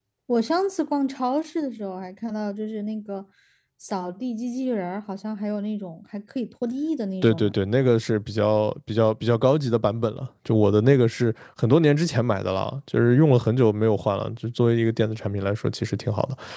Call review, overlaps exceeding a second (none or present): none